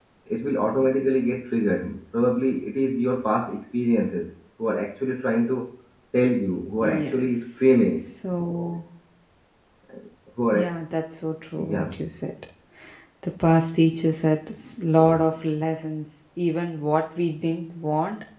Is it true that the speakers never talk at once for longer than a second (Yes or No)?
No